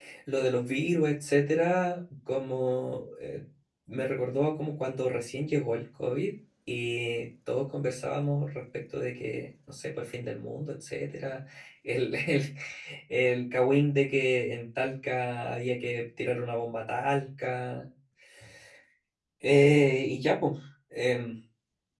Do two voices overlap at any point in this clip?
No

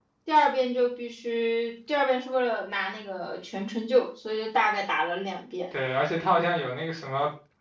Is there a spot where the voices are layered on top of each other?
No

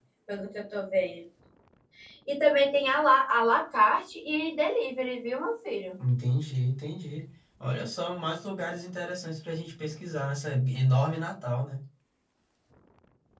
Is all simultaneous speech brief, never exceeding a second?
Yes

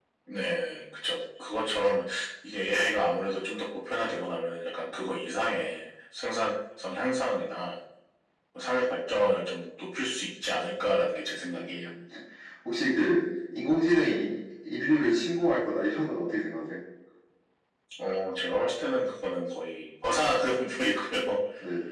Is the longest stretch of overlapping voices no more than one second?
Yes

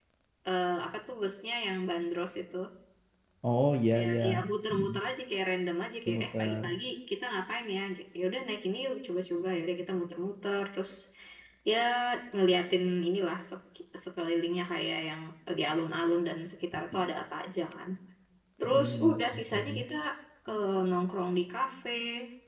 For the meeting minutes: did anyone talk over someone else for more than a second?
Yes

